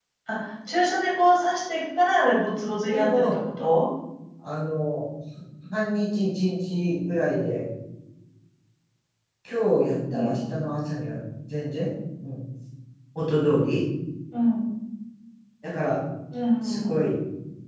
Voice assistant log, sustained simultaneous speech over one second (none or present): none